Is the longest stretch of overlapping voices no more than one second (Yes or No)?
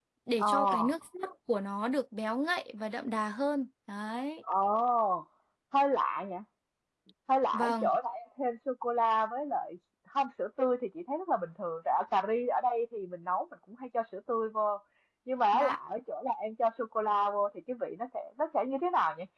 Yes